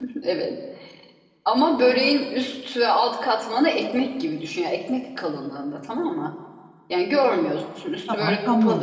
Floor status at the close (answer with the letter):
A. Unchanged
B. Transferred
B